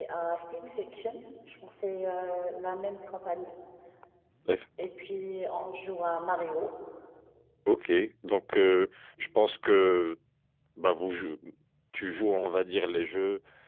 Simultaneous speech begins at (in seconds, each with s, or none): none